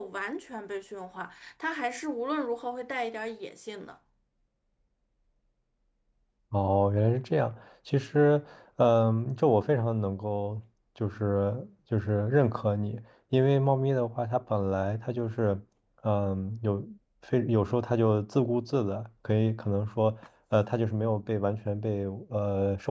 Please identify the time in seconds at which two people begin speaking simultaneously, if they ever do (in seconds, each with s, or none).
none